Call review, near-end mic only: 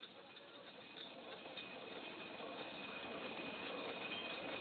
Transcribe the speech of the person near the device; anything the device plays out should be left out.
none

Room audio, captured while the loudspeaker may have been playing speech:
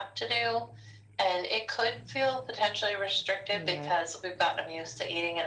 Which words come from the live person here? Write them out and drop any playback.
Yeah,

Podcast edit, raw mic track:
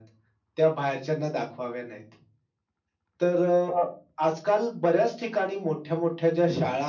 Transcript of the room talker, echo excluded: none

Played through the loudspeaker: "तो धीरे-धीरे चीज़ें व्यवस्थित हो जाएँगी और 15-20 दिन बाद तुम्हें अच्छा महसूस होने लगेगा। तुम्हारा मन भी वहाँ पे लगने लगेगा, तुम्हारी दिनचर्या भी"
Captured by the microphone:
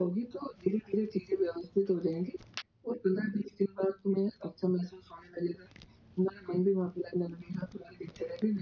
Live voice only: none

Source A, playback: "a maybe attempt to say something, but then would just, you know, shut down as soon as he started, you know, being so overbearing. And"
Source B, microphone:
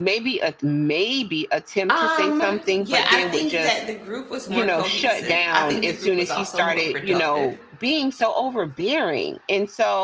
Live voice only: Um, yeah, I think that the group was more cohesive. I think the group was also more productive

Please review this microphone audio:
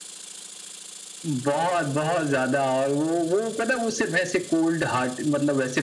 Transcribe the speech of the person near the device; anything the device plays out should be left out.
none

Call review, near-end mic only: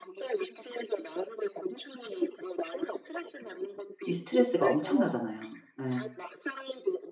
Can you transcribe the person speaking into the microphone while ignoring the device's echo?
이 스트레스가 엄청나잖아요. 예.

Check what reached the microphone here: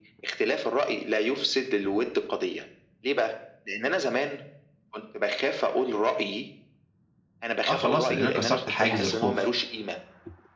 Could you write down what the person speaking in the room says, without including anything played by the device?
آه خلاص، لإن أنا كسرت حاجز الخوف،

